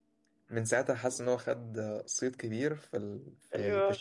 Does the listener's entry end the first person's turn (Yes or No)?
No